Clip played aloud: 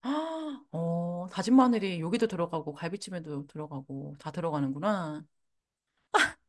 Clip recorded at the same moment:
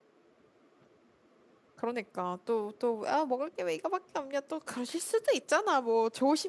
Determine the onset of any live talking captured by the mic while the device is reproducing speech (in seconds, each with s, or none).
1.7 s